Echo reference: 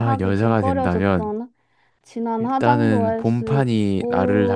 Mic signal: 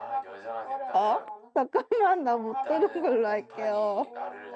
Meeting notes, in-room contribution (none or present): present